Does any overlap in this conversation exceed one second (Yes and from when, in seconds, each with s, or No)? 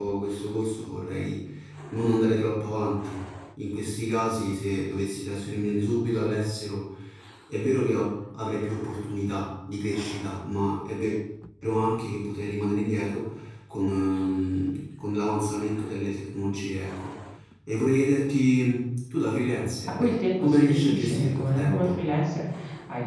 Yes, from 19.9 s